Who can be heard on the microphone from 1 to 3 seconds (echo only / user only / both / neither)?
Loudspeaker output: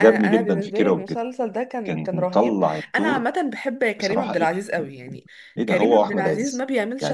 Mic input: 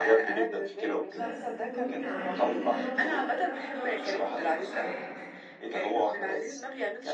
both